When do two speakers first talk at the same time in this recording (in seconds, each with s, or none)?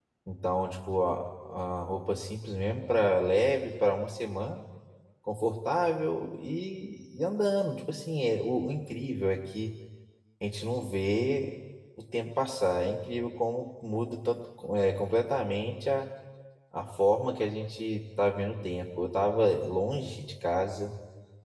none